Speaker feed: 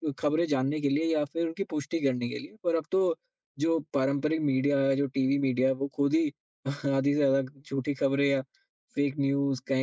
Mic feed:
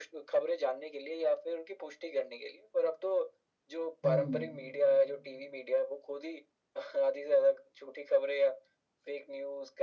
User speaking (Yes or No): Yes